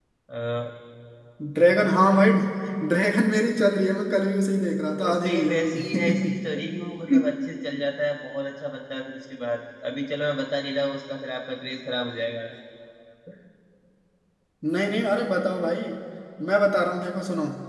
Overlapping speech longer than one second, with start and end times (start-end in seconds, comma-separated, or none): 5.0-6.4